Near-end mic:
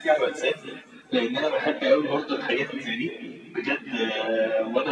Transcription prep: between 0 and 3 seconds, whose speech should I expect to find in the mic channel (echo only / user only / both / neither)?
echo only